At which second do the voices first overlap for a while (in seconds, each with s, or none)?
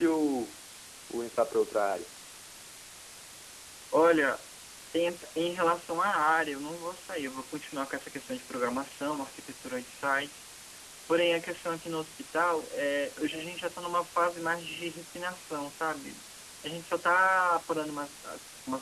none